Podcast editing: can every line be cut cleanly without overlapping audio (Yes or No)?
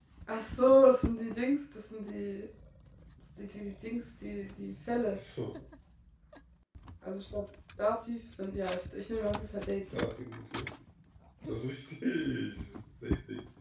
Yes